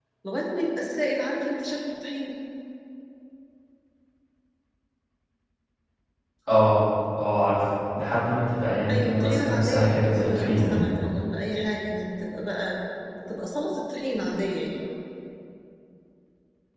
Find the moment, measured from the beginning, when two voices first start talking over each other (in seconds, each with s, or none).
8.9 s